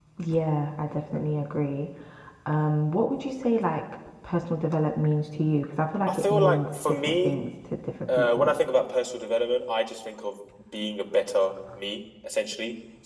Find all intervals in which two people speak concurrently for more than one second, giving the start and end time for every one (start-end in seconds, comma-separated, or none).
6.1-7.3